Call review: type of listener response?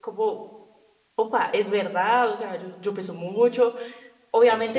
listening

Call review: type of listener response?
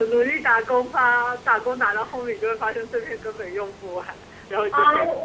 taking over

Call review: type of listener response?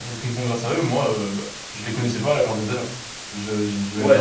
taking over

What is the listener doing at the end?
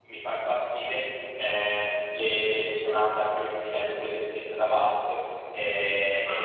listening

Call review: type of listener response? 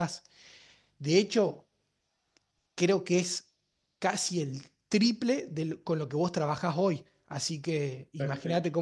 taking over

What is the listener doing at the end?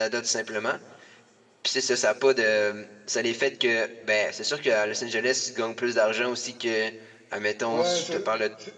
taking over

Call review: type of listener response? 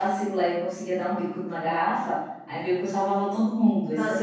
taking over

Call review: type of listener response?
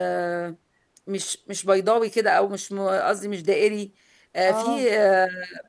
listening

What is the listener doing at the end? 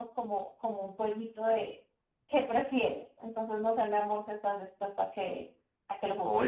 taking over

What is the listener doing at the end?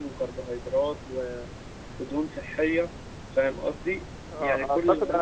taking over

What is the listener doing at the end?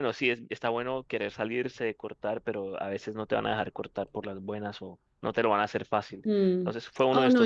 taking over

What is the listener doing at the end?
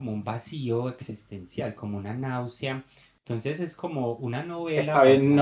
taking over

